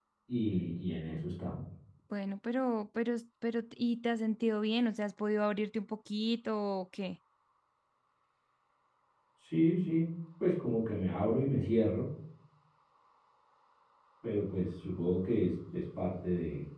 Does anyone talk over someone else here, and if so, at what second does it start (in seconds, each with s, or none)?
none